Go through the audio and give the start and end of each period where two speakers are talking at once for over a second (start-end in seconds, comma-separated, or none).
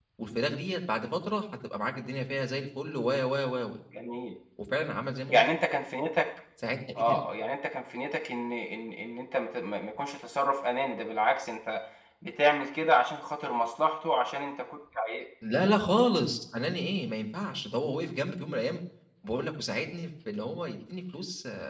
none